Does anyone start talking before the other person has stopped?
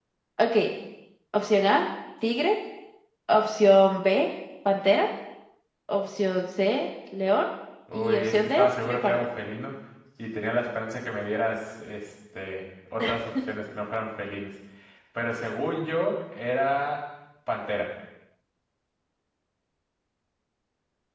Yes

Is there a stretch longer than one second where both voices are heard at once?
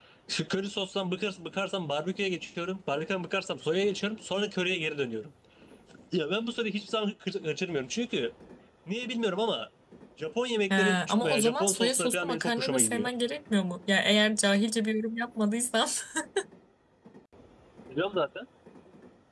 Yes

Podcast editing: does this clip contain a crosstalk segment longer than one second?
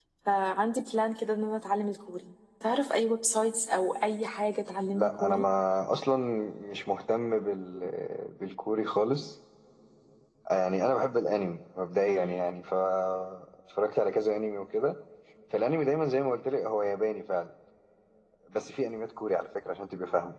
No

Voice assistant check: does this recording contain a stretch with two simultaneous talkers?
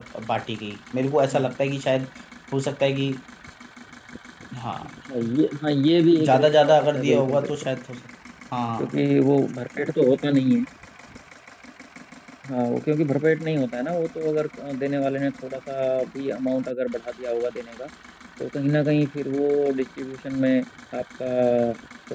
Yes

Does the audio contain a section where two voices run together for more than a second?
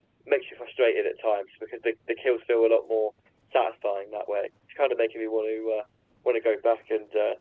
No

